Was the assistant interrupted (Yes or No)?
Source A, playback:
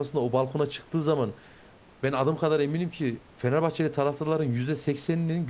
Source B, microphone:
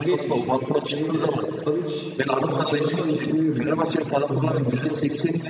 Yes